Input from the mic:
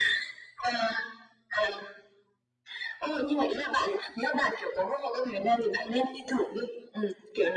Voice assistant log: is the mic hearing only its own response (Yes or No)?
Yes